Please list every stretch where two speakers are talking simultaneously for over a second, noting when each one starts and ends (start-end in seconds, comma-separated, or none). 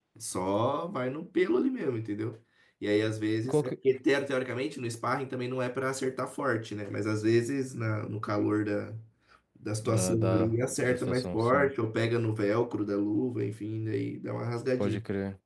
9.8-11.7